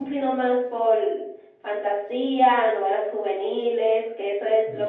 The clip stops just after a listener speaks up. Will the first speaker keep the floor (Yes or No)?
Yes